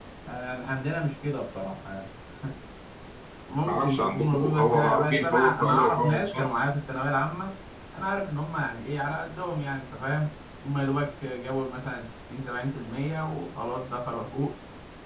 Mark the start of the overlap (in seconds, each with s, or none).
3.6 s